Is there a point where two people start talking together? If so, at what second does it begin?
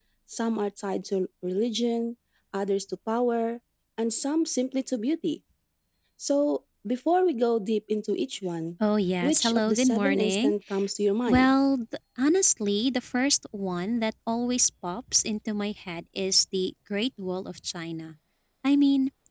9 s

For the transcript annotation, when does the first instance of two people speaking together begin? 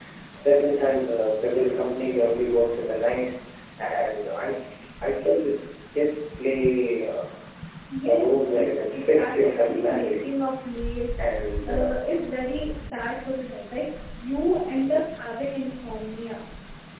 8 s

